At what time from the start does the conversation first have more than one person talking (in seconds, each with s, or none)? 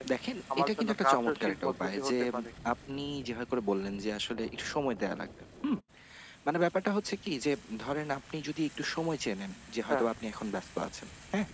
0.6 s